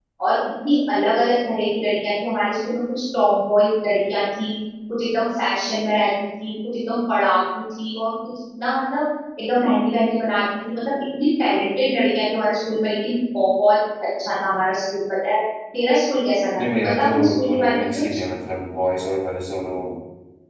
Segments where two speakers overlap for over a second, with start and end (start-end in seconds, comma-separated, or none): 16.6-18.0